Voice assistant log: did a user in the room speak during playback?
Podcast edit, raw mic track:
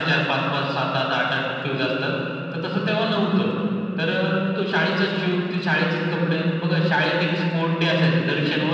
No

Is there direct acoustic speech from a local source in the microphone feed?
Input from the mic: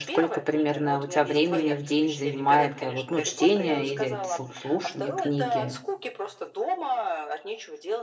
Yes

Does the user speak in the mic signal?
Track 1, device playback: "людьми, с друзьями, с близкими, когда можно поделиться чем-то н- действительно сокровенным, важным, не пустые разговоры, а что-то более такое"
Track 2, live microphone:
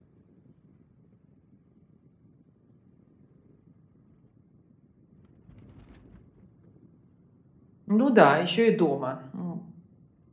Yes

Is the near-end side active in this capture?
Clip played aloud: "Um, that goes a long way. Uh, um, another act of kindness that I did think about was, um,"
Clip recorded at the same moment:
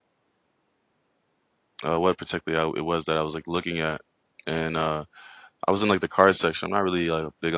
Yes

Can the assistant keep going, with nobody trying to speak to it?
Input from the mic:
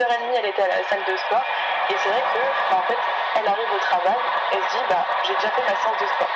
Yes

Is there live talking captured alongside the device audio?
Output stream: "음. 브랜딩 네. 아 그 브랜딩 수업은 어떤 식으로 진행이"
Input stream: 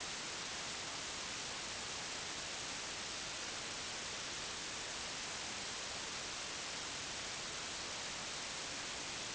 No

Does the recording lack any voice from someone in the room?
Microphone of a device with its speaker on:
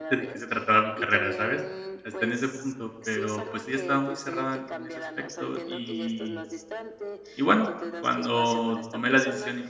No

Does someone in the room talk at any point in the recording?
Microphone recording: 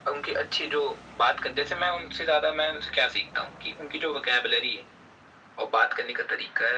No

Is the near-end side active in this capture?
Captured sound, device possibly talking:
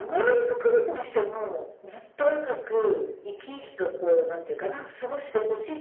No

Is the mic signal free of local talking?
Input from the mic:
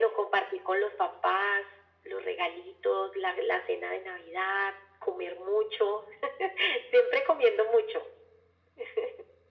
Yes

